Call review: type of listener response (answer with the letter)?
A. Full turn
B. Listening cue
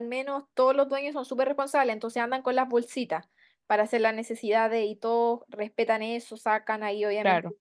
B